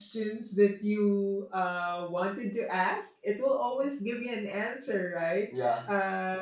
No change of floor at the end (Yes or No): Yes